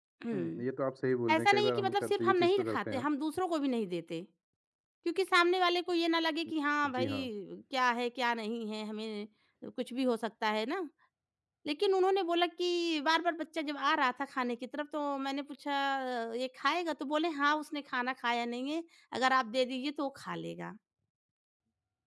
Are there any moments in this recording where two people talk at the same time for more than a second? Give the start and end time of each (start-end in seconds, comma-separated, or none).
1.4-3.0